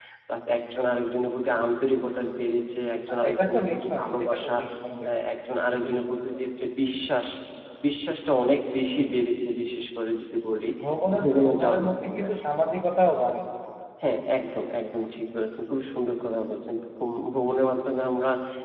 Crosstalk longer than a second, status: present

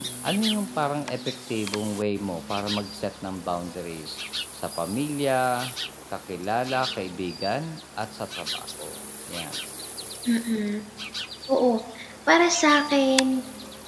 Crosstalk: none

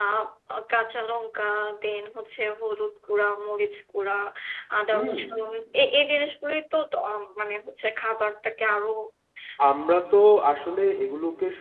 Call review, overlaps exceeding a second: none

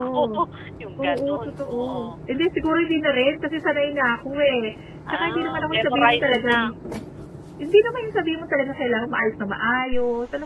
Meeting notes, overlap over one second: present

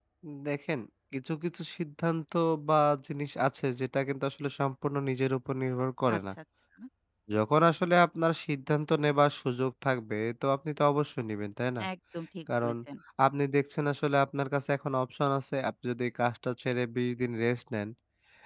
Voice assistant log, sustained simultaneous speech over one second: none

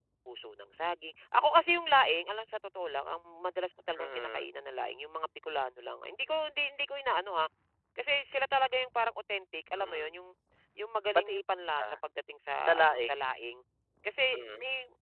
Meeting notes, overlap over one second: none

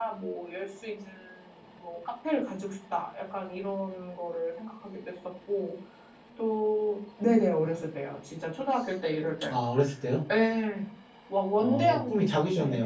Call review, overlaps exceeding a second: none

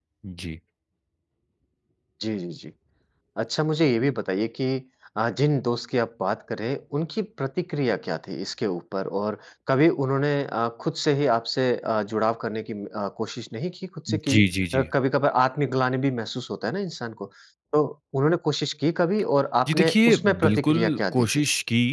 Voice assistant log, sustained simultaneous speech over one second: present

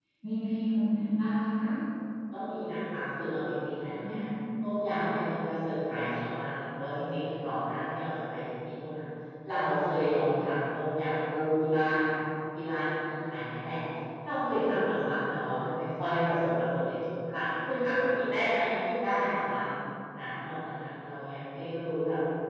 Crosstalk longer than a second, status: none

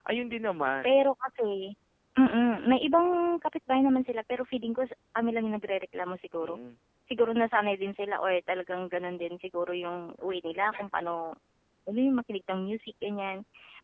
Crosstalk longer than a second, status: none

